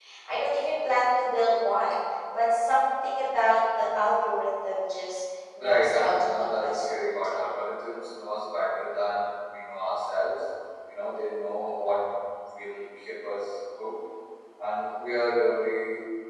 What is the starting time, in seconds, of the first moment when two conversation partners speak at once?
5.6 s

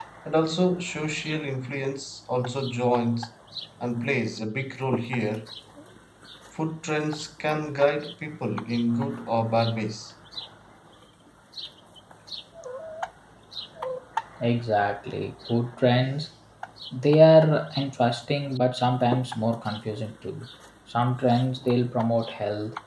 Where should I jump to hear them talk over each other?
none

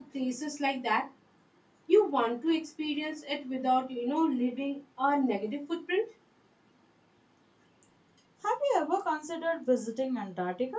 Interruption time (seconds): none

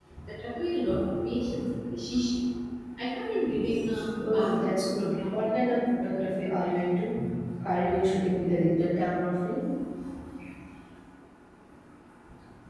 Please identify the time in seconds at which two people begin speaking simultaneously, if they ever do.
4.2 s

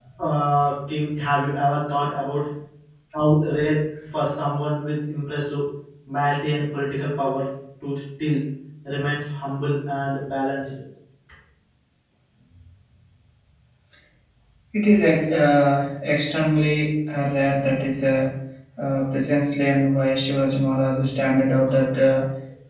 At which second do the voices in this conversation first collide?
none

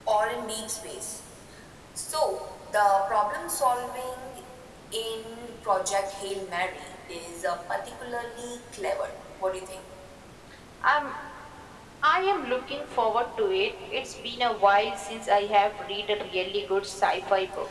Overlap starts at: none

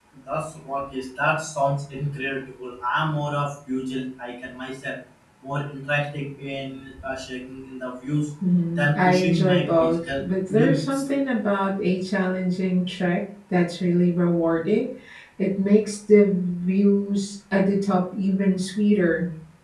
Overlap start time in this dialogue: 8.7 s

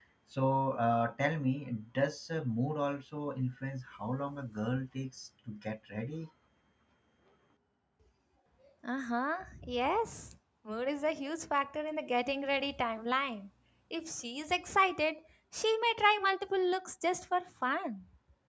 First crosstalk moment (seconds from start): none

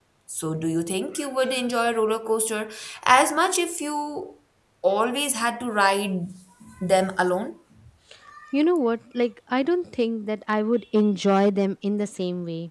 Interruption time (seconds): none

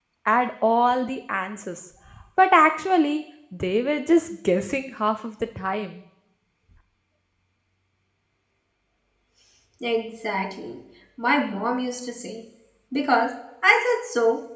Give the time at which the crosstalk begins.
none

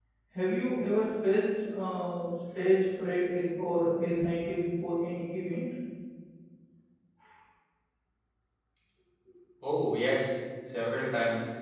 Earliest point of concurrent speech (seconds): none

